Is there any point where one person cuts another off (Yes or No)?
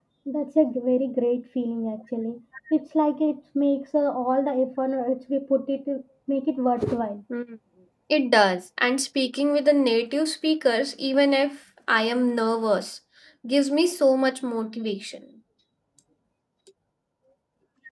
No